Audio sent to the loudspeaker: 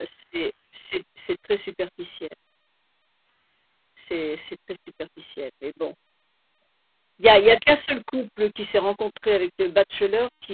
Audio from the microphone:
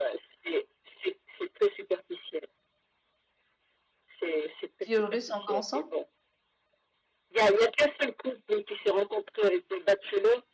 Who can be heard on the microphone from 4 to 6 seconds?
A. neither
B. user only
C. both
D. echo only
C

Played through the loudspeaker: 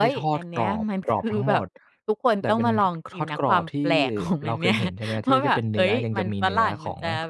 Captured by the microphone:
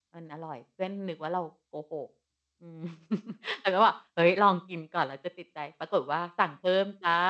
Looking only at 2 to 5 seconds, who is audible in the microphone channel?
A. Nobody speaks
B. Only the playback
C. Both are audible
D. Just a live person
D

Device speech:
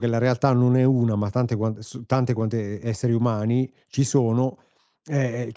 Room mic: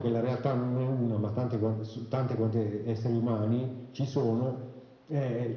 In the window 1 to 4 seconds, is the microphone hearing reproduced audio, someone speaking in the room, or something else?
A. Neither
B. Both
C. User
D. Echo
D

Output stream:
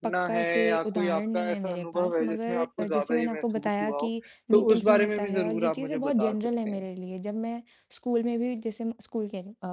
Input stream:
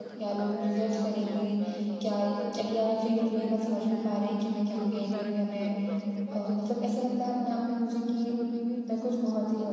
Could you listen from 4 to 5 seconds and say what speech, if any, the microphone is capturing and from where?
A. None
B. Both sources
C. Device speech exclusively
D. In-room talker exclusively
B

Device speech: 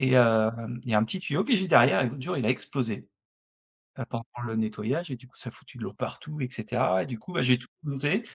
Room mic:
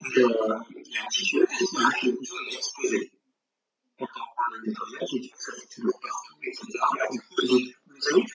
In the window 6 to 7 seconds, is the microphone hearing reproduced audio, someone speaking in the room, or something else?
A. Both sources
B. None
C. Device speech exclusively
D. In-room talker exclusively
C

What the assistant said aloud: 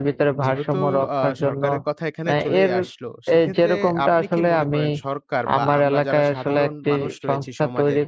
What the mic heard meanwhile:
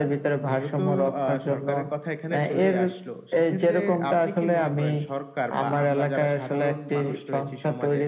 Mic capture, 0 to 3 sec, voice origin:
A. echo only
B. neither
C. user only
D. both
A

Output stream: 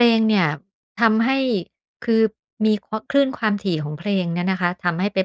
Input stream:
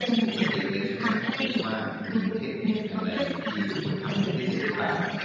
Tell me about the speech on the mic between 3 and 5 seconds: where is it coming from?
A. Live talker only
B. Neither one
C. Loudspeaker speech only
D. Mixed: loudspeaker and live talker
D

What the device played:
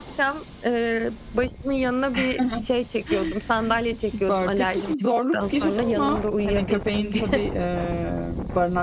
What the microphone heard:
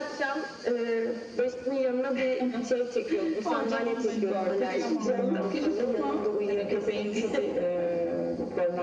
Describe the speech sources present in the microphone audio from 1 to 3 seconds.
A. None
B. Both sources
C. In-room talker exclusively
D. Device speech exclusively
D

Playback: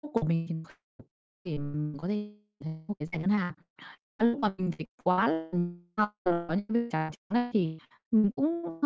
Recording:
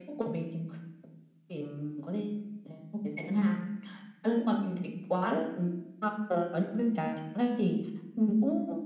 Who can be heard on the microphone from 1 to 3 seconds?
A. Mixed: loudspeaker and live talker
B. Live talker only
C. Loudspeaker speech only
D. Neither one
C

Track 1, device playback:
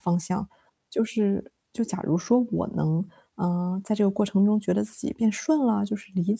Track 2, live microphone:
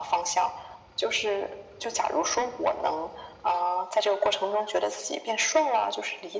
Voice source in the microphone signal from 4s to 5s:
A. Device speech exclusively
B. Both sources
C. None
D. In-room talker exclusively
A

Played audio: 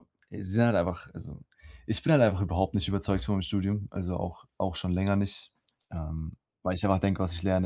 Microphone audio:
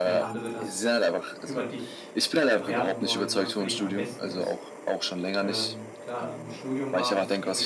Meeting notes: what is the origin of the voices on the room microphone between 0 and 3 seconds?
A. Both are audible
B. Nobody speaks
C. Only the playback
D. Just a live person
A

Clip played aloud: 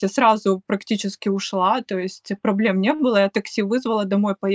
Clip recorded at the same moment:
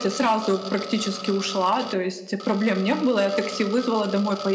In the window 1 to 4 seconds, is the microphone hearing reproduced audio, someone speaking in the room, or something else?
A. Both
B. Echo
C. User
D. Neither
B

